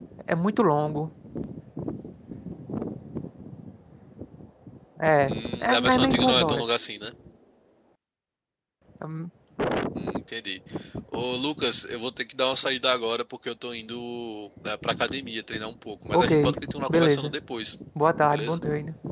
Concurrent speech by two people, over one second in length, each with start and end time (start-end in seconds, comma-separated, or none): 5.3-6.7